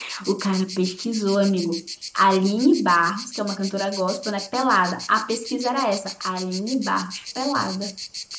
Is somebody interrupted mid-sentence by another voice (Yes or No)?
No